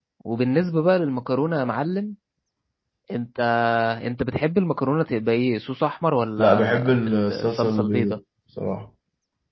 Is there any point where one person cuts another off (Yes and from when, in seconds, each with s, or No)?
Yes, from 6.4 s